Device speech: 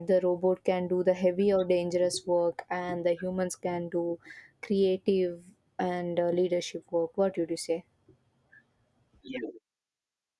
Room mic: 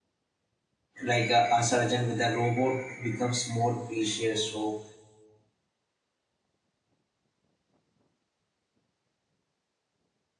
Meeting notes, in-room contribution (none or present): present